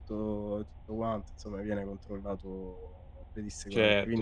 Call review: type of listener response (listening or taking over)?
taking over